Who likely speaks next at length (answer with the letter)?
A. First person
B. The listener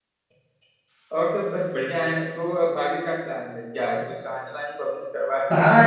B